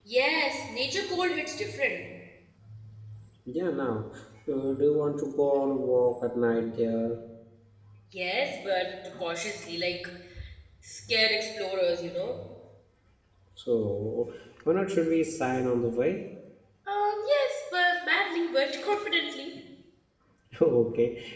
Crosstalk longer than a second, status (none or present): none